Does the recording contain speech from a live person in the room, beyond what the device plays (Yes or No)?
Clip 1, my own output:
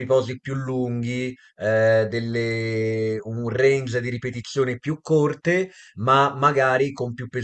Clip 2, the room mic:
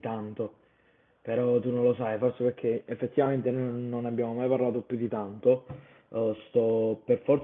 Yes